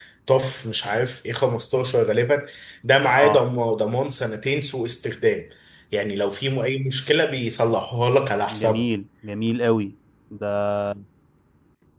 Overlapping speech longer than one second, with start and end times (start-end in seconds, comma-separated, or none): none